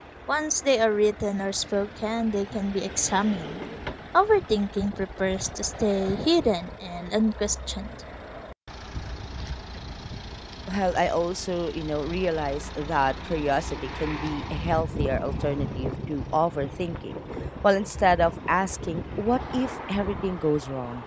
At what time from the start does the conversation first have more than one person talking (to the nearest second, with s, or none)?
none